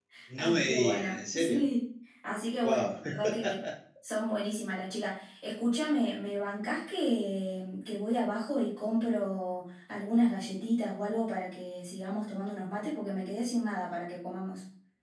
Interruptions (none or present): present